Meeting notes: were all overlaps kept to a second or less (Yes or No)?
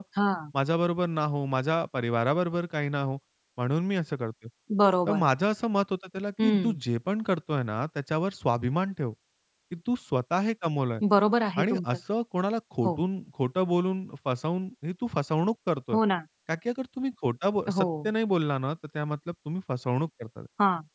Yes